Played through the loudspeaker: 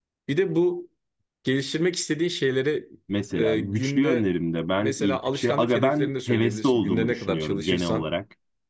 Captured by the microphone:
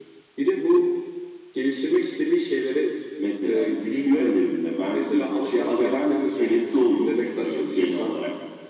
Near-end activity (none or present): none